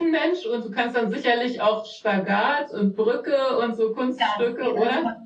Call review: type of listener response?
taking over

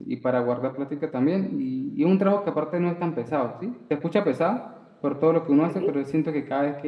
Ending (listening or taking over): listening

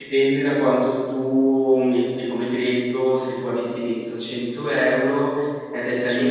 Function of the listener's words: listening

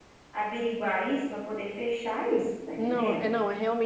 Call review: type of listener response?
taking over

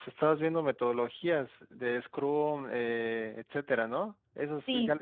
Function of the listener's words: taking over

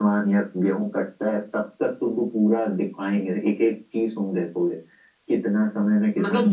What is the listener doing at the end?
taking over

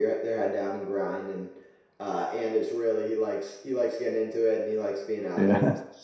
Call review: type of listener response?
listening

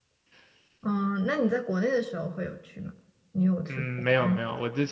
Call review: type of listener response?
taking over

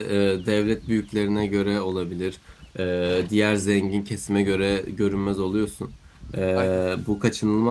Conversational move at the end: listening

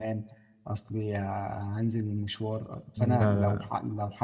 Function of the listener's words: listening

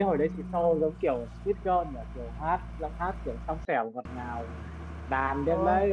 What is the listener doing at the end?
listening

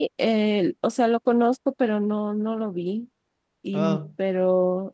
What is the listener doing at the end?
listening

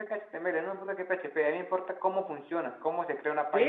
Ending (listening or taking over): taking over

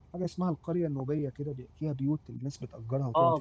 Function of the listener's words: taking over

